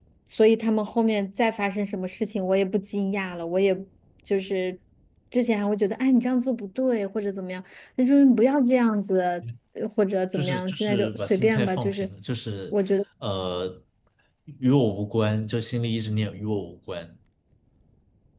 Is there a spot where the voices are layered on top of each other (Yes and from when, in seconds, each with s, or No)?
Yes, from 10.3 s